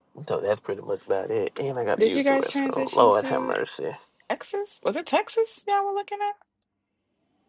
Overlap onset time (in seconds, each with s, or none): 2.0 s